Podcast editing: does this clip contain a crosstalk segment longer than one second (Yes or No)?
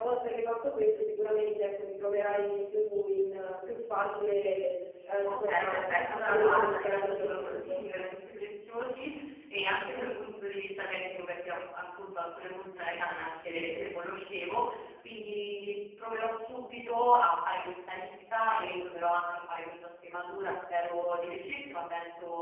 Yes